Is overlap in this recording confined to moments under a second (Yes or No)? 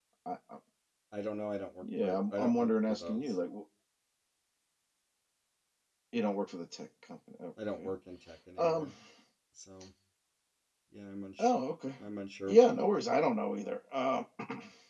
No